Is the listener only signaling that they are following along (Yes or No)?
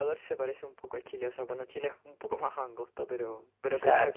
Yes